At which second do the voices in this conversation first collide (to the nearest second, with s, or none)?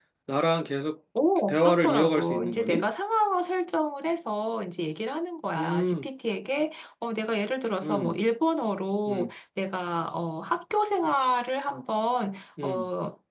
1 s